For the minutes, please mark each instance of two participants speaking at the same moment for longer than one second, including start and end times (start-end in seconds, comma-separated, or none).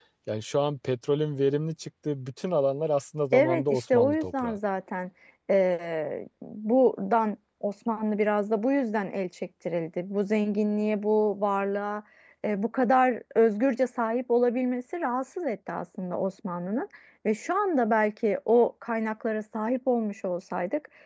3.3-4.6